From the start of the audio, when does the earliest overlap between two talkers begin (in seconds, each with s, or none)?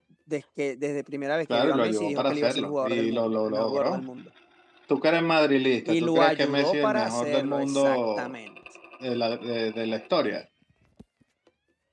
1.5 s